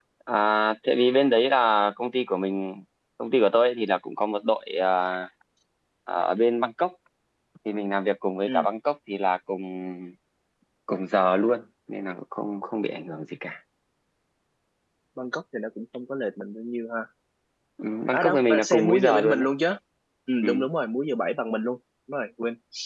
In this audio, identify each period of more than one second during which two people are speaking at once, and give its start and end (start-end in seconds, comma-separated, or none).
18.1-19.5